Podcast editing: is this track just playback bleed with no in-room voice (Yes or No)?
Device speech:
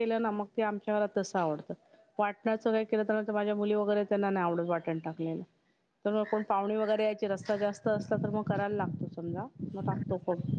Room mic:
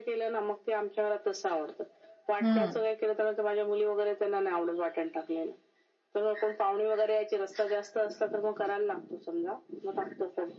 No